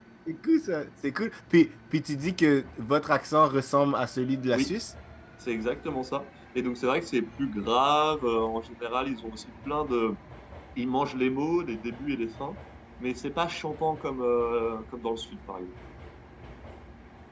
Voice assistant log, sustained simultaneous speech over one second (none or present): none